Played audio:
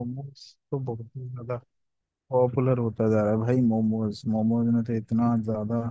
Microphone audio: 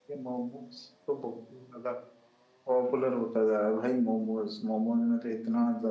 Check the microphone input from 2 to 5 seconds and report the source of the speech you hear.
echo only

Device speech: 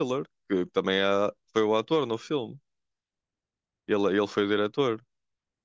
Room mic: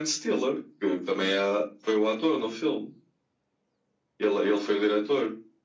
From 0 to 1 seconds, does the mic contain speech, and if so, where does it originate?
echo only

